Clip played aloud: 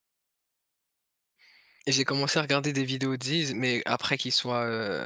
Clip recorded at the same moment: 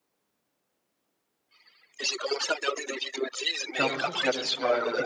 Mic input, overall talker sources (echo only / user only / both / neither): both